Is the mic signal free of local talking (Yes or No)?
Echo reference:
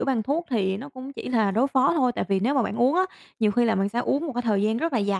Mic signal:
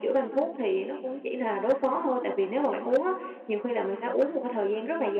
Yes